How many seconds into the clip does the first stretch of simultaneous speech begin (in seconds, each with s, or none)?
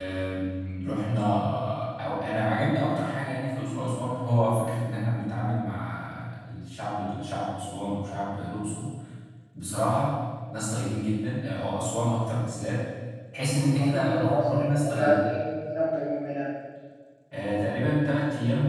13.7 s